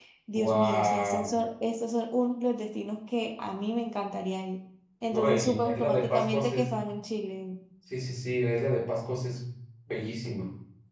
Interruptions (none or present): present